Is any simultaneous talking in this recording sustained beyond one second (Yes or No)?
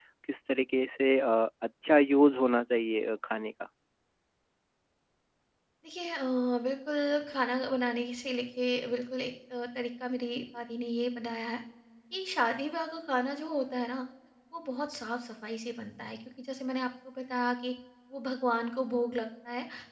No